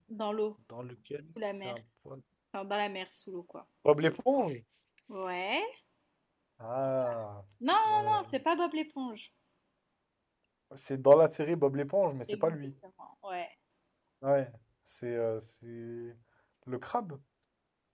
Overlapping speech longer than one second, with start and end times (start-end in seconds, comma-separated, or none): none